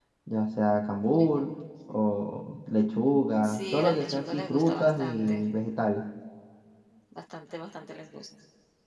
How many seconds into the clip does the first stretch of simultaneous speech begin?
3.4 s

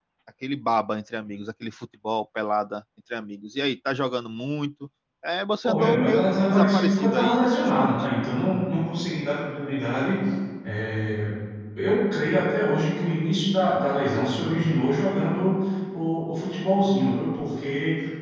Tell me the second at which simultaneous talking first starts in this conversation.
5.6 s

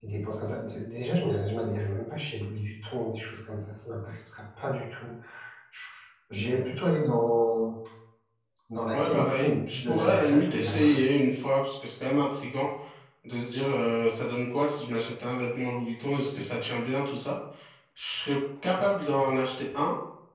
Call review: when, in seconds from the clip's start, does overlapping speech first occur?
8.9 s

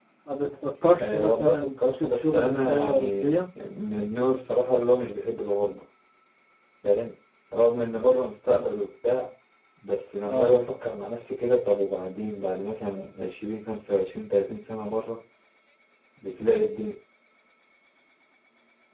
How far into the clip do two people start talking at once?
1.0 s

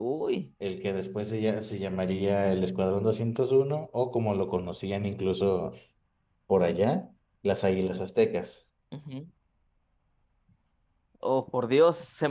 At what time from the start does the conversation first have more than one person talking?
none

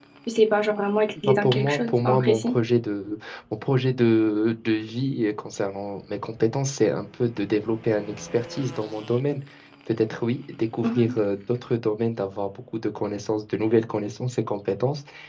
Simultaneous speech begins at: 1.2 s

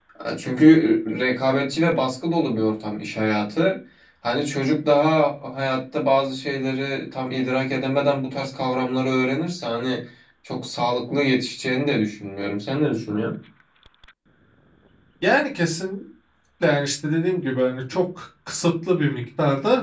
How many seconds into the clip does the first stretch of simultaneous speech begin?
none

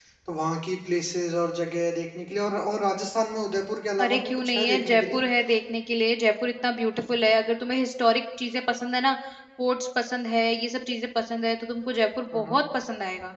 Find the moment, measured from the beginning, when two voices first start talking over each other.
4.0 s

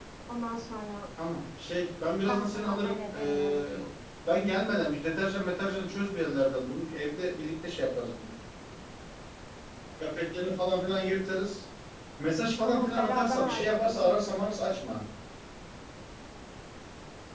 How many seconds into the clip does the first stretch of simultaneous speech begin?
2.2 s

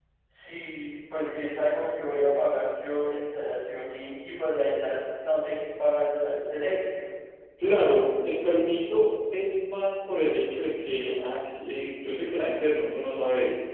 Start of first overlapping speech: none

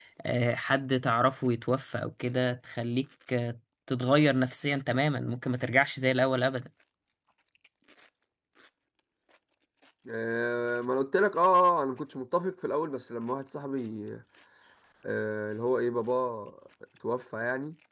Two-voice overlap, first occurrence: none

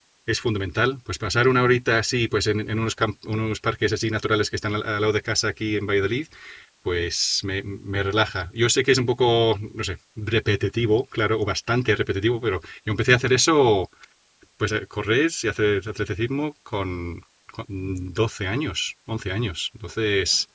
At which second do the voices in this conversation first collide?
none

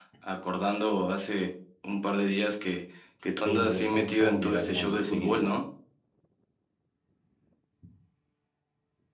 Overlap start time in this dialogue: 3.4 s

